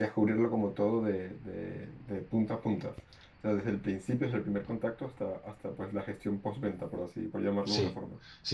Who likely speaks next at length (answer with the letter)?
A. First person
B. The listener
B